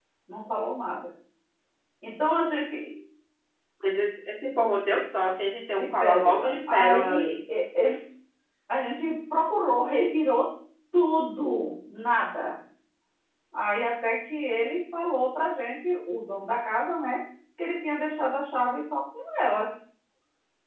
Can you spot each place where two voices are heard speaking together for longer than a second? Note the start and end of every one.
5.8-7.4

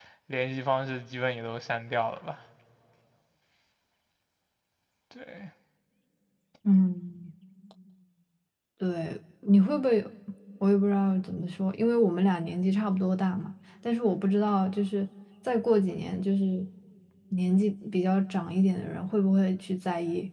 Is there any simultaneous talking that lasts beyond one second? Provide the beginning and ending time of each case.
none

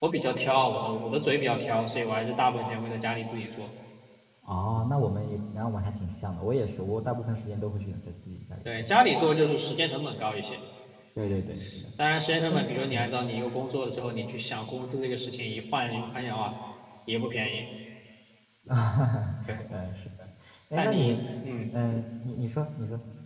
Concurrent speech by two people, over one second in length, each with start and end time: none

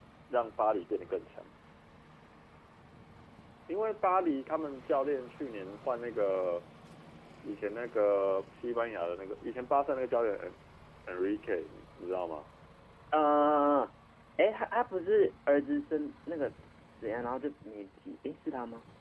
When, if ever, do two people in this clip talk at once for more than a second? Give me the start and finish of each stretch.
none

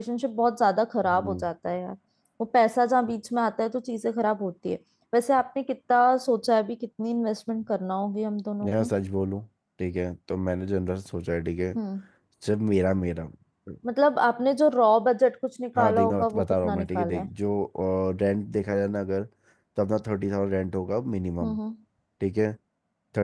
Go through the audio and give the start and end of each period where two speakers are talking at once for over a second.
15.8-17.3

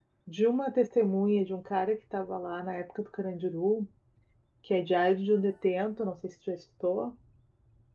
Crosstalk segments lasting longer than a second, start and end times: none

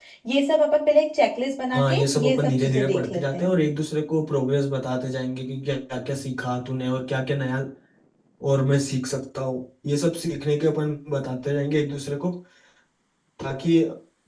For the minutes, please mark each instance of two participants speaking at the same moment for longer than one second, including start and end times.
1.7-3.5

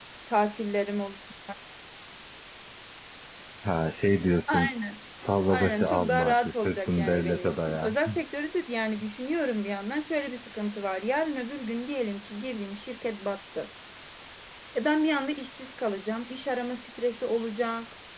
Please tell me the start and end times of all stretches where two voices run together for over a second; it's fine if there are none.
5.5-8.0

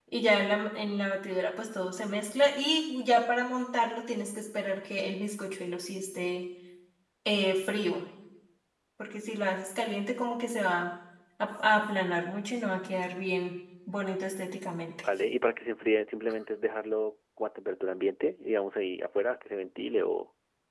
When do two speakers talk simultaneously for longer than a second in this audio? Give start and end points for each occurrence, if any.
none

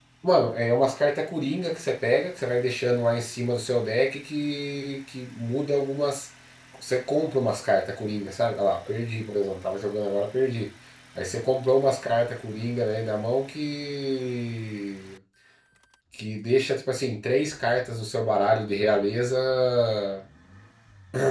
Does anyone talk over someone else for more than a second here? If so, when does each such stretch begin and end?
none

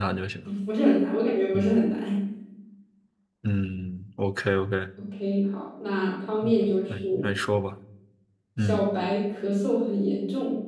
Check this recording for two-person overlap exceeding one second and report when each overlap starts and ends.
none

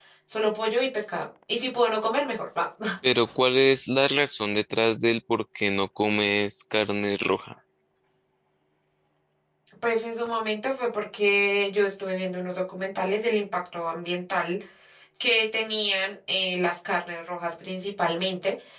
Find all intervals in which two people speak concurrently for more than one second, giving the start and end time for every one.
none

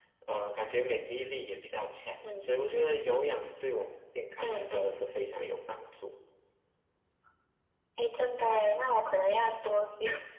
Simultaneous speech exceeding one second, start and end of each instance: none

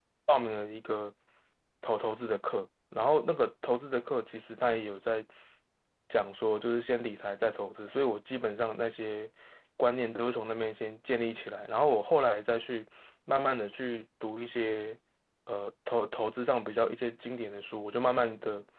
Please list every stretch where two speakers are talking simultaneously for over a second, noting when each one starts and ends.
none

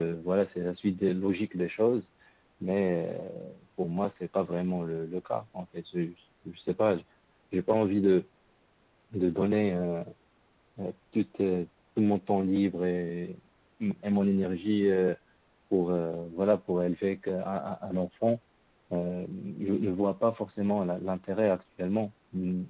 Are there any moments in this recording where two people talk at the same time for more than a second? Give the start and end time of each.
none

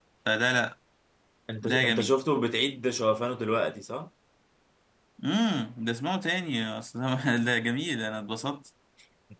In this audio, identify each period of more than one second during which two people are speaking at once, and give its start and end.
none

